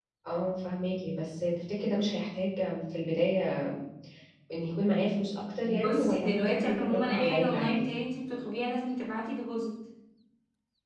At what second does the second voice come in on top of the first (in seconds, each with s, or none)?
5.6 s